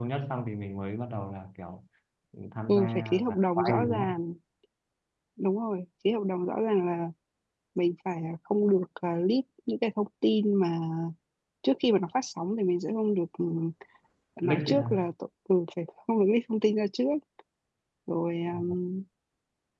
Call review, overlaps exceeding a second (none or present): present